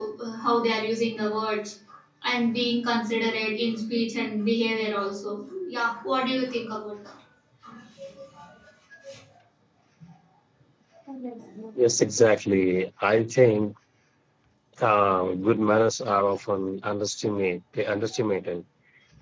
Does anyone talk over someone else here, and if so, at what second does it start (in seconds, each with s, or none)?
none